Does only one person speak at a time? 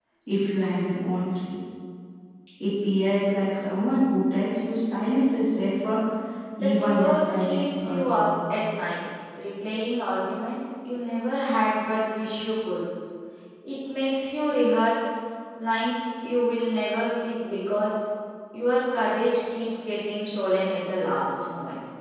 No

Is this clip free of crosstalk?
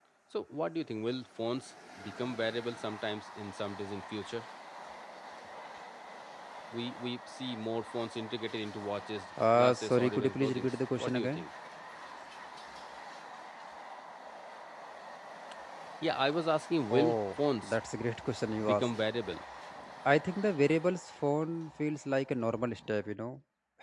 No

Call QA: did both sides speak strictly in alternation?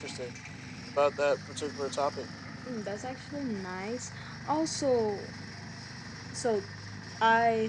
Yes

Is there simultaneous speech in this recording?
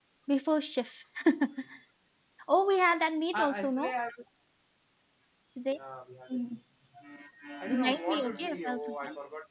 Yes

